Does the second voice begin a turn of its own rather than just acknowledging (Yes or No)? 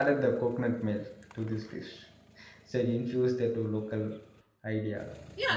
Yes